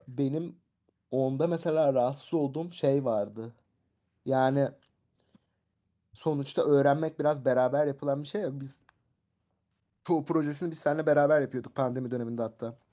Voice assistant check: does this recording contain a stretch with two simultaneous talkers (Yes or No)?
No